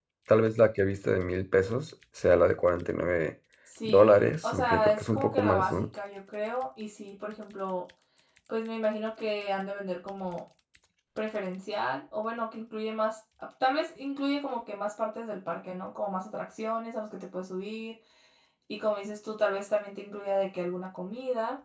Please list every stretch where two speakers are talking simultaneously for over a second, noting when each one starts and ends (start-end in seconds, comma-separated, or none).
3.9-5.9